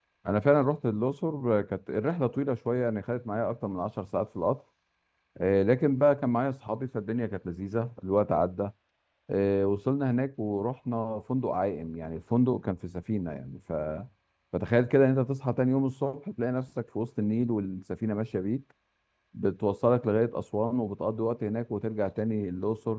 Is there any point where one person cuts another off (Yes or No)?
No